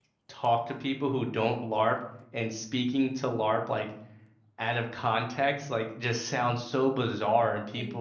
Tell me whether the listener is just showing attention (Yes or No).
Yes